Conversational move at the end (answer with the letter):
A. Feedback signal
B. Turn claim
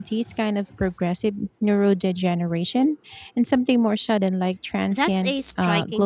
B